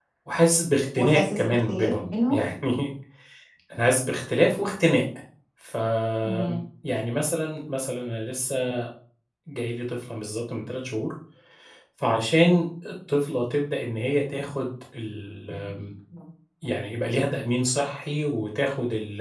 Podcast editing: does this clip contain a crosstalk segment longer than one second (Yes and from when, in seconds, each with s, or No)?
Yes, from 1.0 s